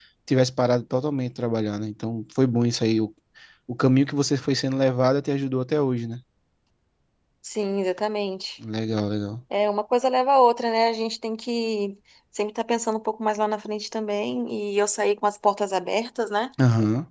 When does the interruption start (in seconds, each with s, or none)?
none